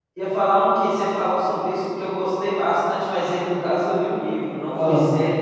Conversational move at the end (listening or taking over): listening